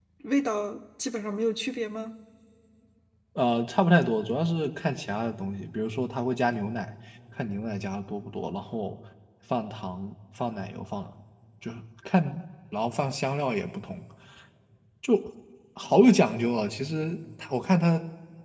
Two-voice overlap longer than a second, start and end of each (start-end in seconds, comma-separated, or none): none